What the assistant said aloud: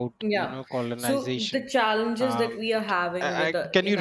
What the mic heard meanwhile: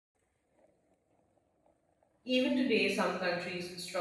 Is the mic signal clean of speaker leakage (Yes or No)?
Yes